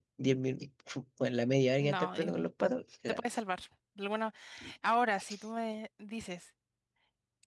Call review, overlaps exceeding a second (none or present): none